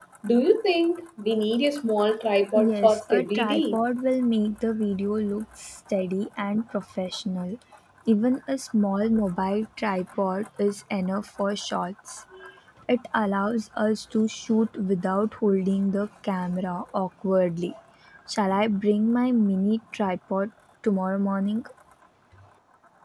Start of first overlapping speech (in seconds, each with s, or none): 2.5 s